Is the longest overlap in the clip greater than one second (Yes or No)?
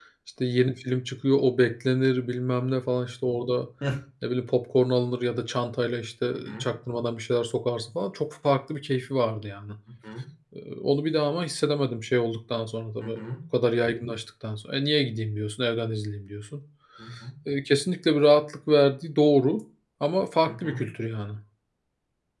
No